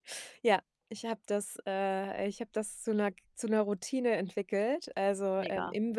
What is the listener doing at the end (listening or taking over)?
listening